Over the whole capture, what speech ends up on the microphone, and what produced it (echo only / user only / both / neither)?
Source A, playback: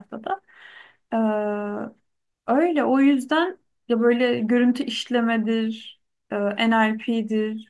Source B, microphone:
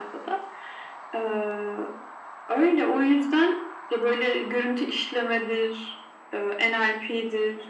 echo only